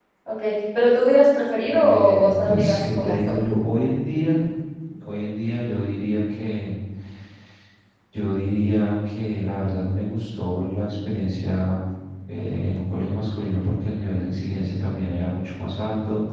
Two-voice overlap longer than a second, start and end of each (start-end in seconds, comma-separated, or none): 1.7-3.4